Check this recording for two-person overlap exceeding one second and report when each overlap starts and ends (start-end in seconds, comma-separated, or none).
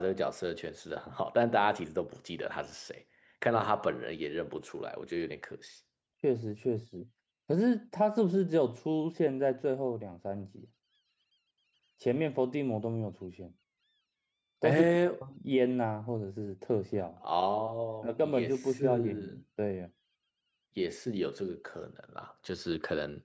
18.0-19.4